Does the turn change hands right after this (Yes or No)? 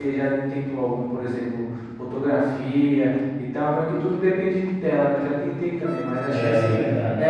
No